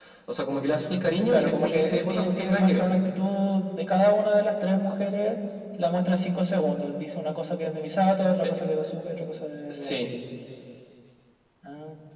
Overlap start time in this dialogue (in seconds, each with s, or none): 1.3 s